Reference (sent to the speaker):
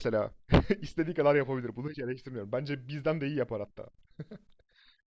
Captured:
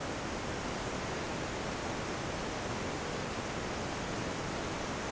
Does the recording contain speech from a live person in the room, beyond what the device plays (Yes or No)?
No